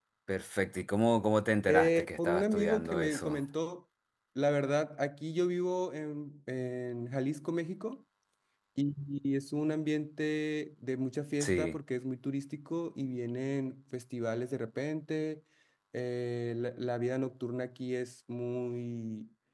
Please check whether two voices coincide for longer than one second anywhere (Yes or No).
Yes